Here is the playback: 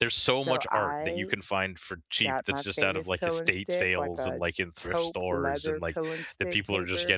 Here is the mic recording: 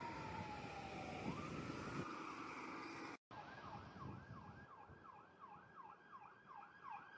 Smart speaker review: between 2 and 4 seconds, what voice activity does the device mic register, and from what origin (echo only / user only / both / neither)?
neither